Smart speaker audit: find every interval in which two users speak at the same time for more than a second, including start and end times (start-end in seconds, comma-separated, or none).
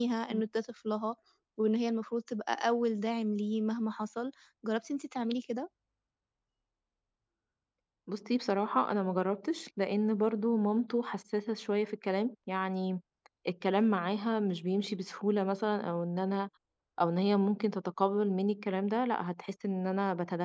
none